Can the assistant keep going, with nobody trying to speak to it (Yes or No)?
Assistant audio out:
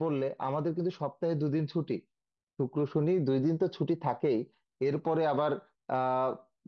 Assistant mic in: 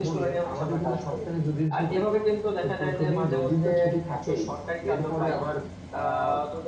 No